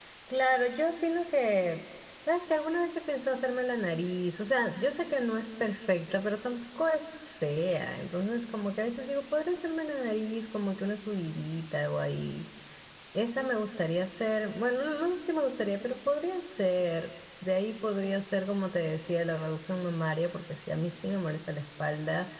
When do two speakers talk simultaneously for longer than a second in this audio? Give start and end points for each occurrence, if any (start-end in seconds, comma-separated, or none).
none